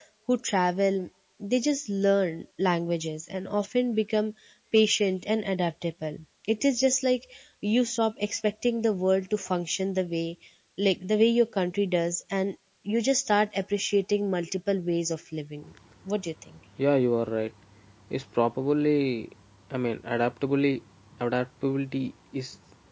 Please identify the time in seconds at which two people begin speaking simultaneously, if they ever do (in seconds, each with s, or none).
none